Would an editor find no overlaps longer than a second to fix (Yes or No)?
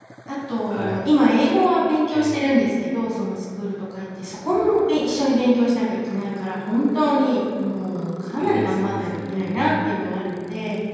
No